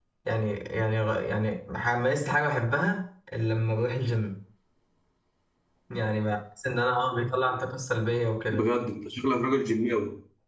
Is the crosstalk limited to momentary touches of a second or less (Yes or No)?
Yes